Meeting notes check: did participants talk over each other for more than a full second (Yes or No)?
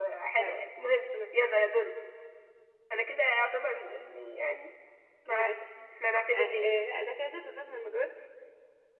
No